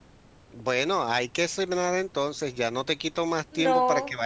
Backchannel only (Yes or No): Yes